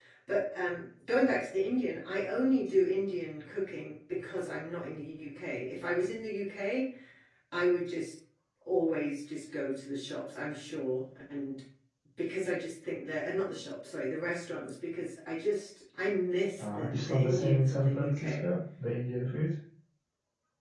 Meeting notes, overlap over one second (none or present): present